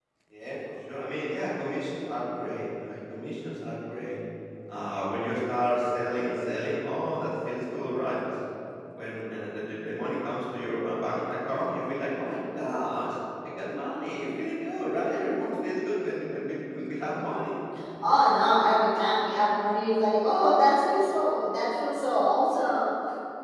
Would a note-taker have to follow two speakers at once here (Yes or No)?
No